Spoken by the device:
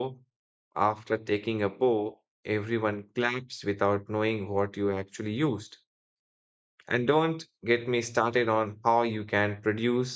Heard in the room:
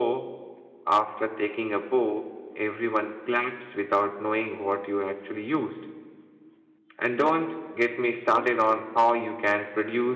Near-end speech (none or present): present